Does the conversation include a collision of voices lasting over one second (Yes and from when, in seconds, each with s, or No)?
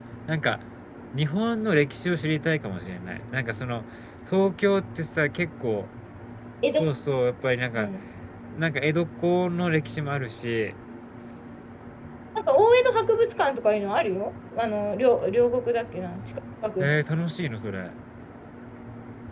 No